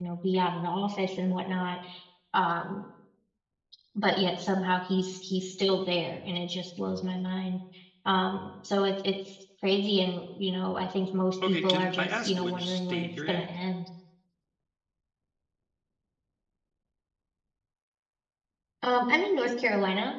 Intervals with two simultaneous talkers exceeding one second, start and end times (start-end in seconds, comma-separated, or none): 11.5-13.5